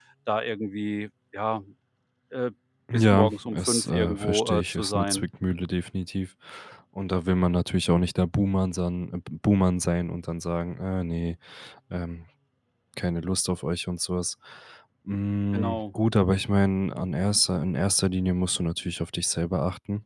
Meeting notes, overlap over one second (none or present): present